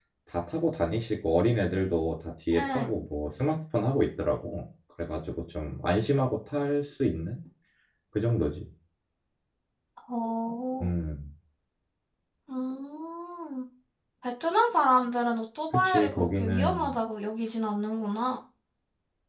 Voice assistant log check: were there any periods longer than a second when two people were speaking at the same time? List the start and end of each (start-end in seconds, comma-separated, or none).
15.7-17.0